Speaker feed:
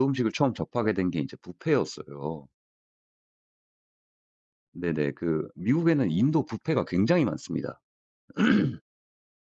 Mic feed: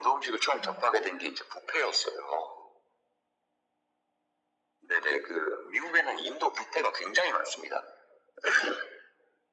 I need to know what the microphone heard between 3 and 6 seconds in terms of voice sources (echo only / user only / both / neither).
echo only